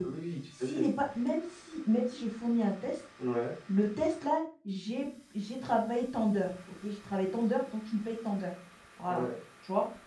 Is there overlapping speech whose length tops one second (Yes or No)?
No